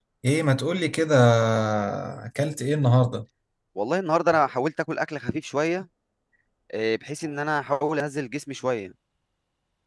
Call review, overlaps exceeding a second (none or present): none